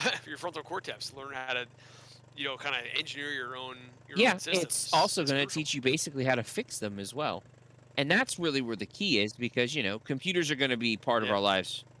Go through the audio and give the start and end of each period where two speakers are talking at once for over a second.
4.2-5.6

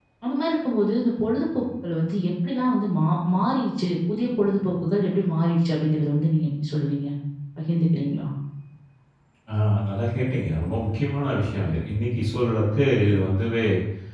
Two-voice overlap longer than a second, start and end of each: none

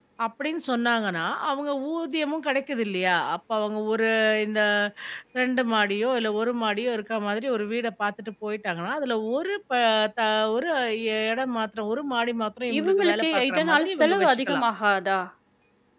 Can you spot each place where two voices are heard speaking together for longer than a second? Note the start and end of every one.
12.8-14.6

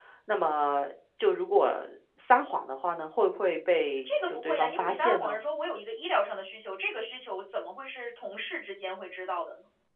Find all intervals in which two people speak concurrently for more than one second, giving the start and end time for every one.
4.0-5.4

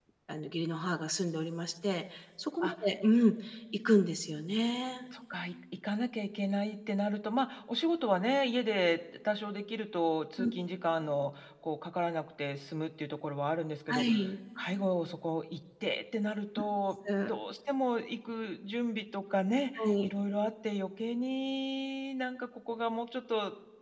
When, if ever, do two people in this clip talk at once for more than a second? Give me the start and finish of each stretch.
none

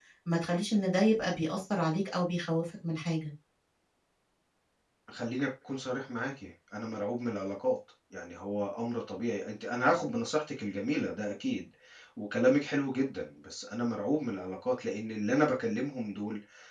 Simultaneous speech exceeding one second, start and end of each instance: none

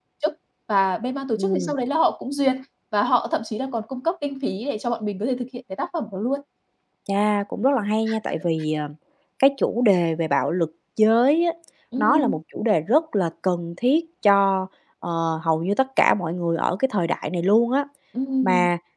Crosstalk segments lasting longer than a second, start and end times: none

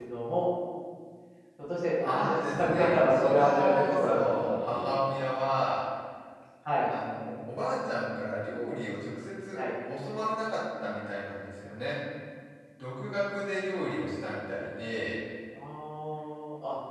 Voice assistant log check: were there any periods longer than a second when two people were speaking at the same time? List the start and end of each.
2.0-4.9

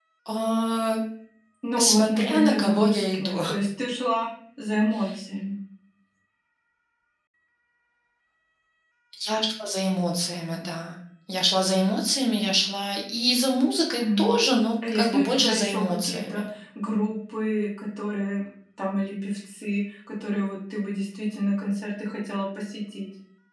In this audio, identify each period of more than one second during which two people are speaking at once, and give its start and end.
1.8-3.4, 14.9-16.4

